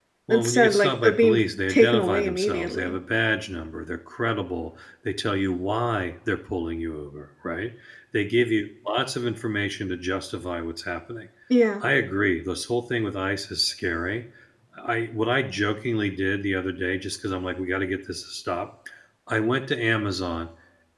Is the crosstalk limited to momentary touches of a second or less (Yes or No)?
No